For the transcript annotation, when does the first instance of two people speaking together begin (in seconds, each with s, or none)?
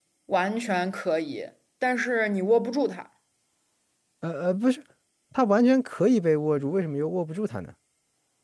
none